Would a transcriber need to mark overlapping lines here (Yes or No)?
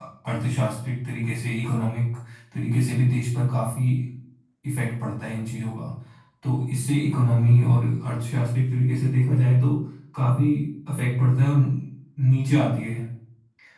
No